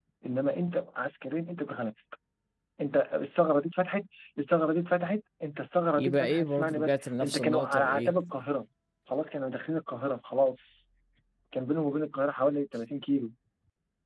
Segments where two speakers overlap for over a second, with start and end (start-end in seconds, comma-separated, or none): 6.0-8.1